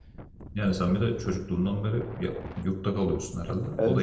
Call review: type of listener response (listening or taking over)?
taking over